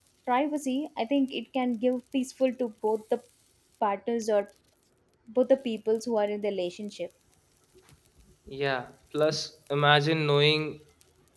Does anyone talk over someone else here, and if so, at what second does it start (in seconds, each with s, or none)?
none